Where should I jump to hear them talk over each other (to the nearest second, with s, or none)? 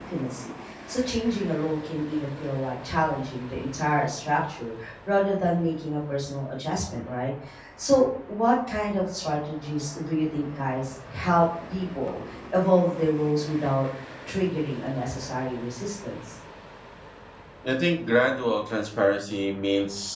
none